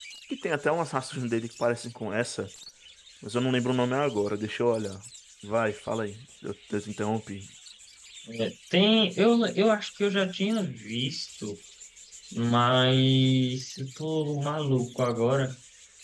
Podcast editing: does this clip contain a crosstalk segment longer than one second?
No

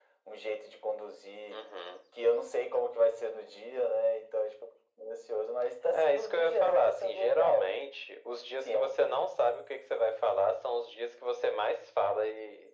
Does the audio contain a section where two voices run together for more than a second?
Yes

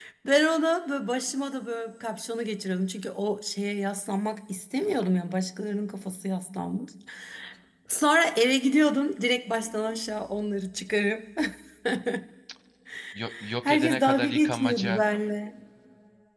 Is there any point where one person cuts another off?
Yes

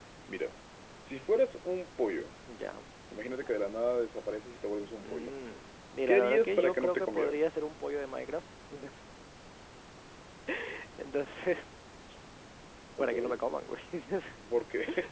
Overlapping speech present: Yes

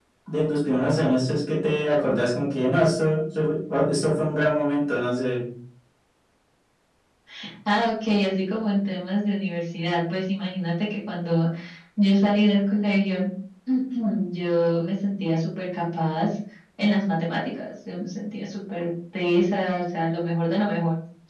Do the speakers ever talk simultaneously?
No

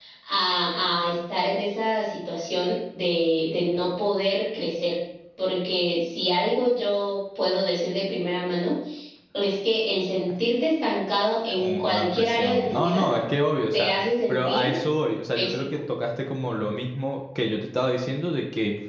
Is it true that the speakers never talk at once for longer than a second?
No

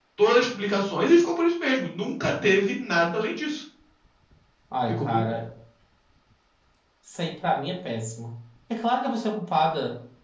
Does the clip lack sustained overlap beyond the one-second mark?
Yes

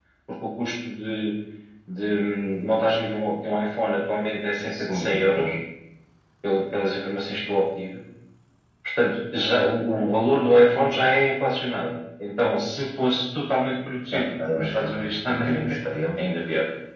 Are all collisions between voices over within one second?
No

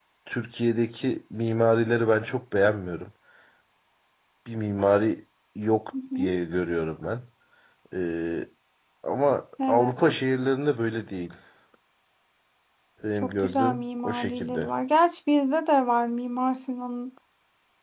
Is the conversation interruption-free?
No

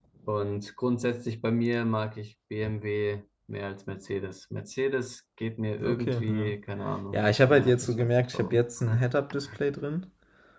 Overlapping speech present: Yes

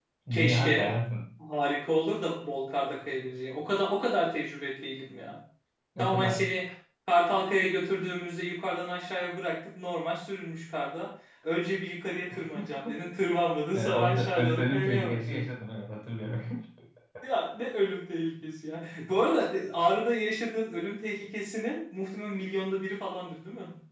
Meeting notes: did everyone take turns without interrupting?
No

